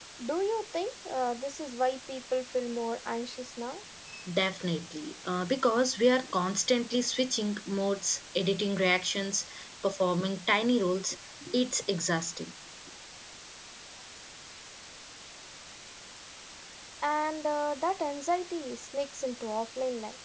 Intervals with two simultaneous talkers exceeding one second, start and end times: none

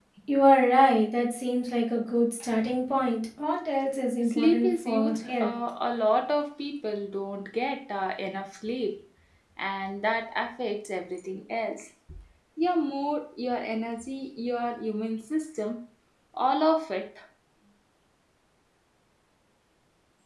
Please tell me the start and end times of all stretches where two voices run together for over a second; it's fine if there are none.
4.3-5.5

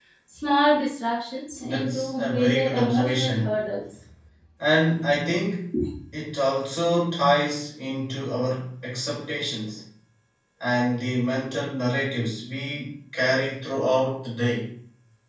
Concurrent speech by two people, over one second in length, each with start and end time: 1.6-3.5

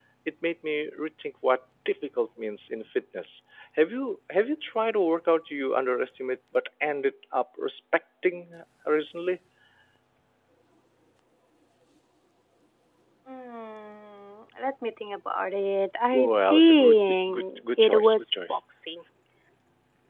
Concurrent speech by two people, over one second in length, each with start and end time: 16.1-18.6

